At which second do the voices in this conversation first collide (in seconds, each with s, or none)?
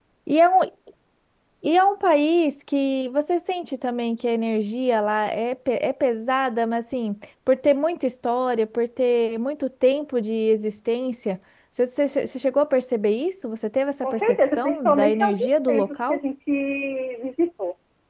14.0 s